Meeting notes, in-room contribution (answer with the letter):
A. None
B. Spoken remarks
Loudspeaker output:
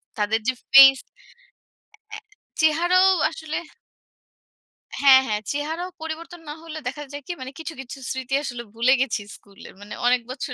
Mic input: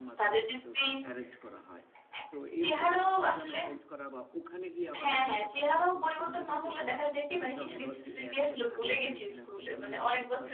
B